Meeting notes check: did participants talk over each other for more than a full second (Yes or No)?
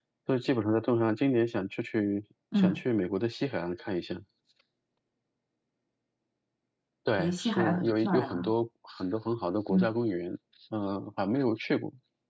Yes